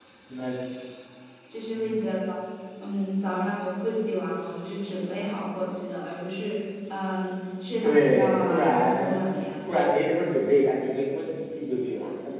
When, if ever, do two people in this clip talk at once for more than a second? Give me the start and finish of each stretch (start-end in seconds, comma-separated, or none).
7.8-9.1